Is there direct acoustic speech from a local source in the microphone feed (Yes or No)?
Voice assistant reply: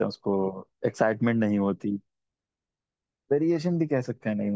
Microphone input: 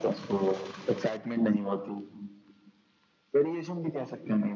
No